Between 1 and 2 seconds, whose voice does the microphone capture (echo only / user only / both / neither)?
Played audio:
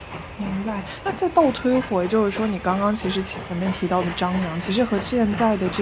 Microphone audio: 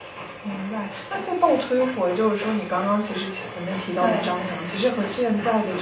echo only